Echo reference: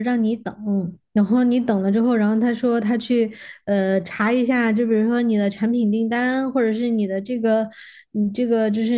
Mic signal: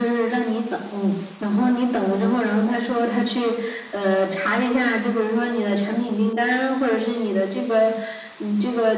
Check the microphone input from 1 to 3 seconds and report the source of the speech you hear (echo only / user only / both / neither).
echo only